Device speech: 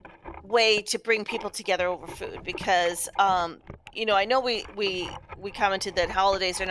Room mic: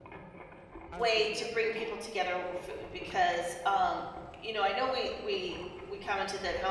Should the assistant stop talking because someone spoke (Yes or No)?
Yes